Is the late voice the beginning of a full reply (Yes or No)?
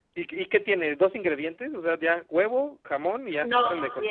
Yes